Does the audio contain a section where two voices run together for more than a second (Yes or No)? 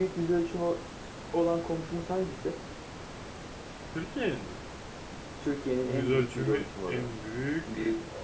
Yes